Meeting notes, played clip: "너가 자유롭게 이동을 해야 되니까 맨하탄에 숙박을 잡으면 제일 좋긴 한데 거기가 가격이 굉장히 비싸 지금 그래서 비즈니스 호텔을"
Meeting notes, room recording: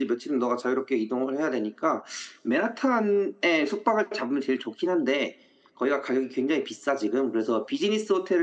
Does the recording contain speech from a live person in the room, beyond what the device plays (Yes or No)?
No